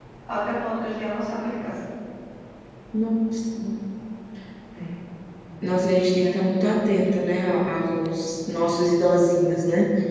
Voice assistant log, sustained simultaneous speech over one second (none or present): none